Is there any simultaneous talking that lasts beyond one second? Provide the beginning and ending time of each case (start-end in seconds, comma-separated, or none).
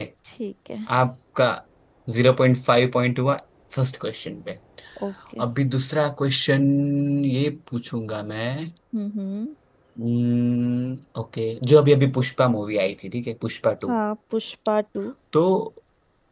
none